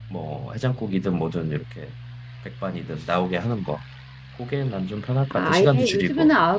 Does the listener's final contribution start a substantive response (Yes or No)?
Yes